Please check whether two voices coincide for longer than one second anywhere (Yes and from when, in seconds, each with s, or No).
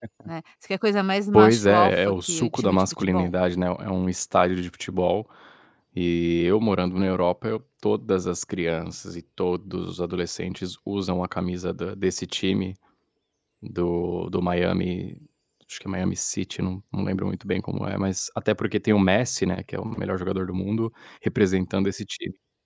Yes, from 1.3 s